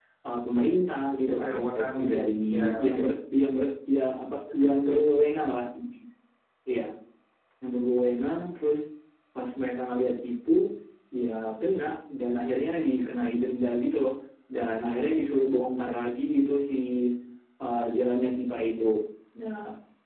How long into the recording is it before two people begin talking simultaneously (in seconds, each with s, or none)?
1.3 s